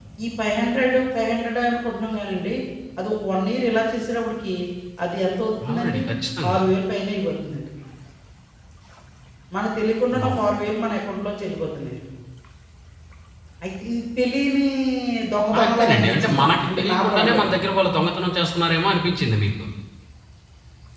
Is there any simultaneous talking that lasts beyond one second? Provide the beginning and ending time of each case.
15.6-17.6

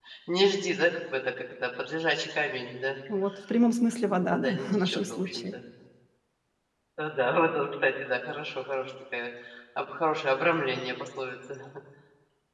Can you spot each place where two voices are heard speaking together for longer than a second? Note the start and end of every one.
4.0-5.5

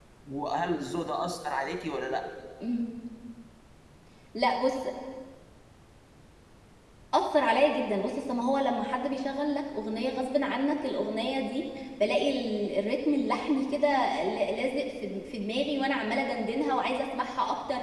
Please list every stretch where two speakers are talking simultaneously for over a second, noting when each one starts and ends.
none

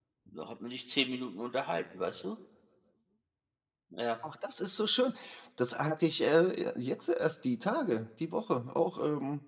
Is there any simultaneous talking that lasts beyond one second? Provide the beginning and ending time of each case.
none

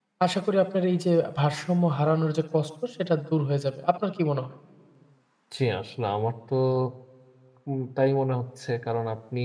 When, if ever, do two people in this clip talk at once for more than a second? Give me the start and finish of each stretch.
none

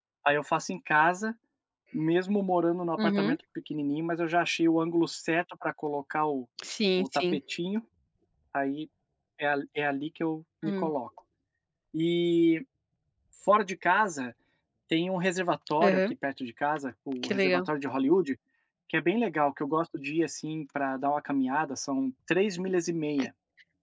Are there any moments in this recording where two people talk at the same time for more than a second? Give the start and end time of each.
none

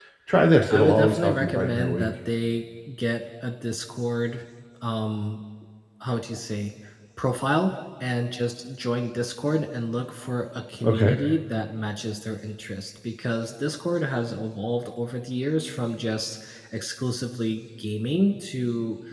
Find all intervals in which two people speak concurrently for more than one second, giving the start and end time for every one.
0.7-2.1

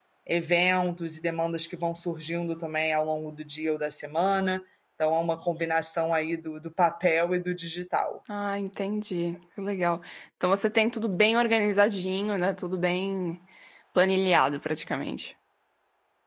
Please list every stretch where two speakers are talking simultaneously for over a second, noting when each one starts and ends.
none

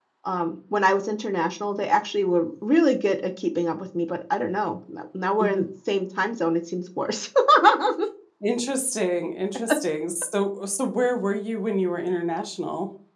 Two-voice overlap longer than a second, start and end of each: none

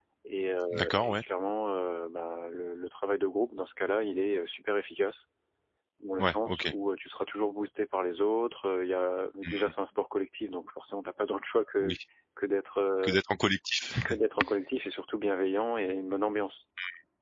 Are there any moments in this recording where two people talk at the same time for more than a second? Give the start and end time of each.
none

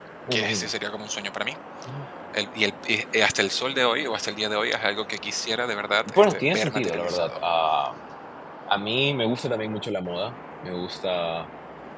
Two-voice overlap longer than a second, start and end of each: 6.1-7.4

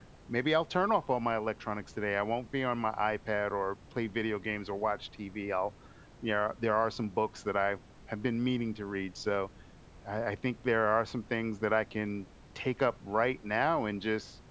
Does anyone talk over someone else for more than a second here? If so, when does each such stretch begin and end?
none

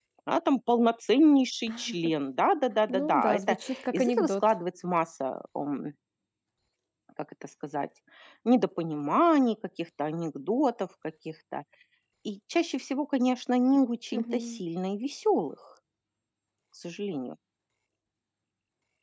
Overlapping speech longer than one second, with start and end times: 2.9-4.4

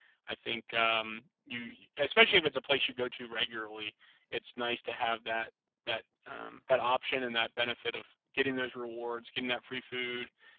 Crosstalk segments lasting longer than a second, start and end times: none

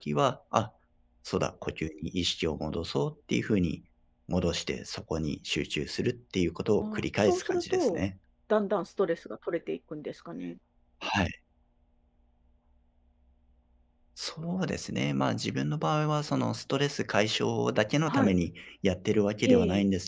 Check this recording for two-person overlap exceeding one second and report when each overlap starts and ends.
6.8-8.0

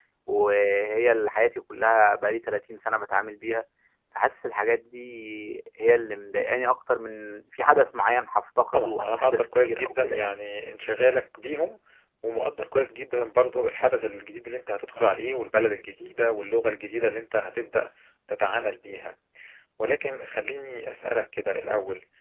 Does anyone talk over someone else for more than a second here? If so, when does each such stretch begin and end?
8.7-10.3

